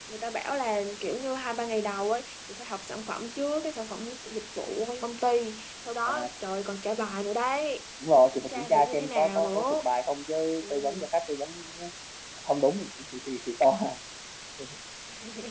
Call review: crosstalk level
present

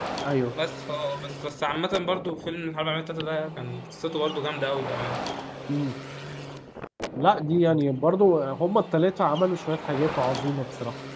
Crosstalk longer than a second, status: none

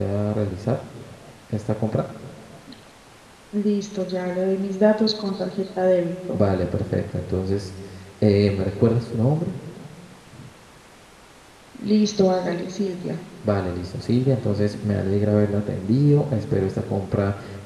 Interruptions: none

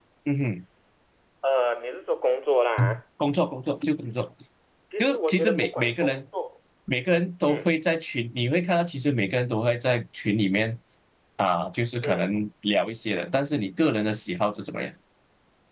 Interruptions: present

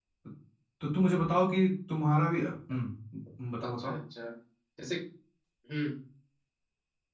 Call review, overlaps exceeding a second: none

